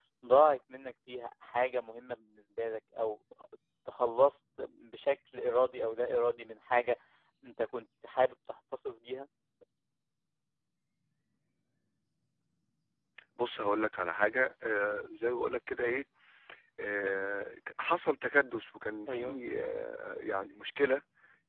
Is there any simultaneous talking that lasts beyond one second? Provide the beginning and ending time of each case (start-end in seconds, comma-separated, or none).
none